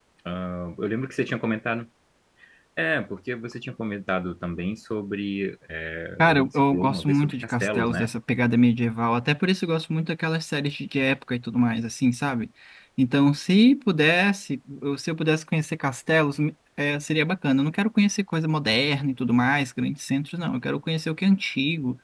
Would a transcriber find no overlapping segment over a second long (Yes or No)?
No